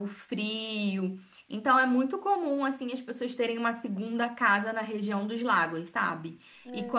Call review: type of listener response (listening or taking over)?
listening